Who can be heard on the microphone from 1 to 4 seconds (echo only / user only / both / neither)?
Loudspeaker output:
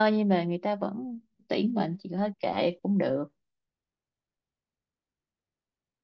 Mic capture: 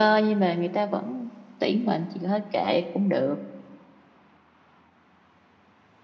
echo only